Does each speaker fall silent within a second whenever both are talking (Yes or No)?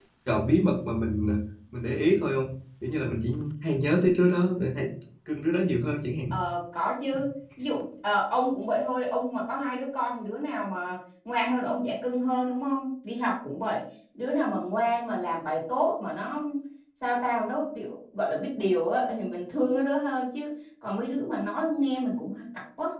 Yes